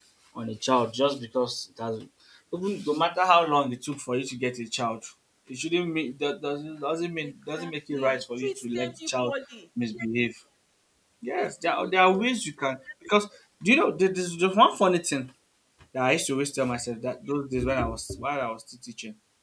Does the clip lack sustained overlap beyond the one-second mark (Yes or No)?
No